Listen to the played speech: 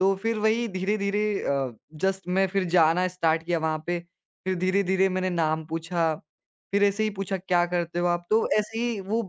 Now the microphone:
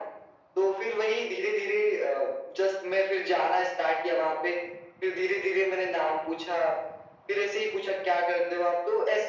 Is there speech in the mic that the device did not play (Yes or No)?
No